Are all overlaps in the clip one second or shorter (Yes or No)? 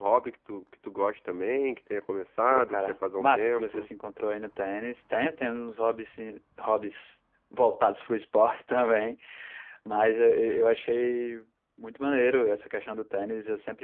No